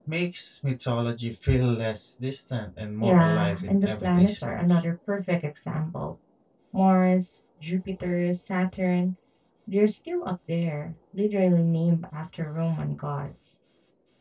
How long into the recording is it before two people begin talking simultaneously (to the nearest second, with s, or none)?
3 s